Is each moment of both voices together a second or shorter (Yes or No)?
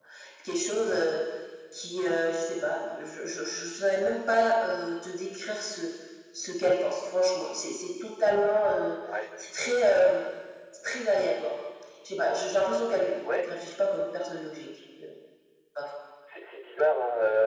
Yes